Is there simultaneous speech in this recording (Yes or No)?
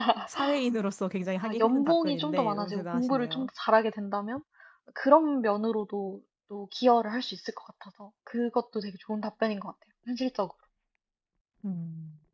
Yes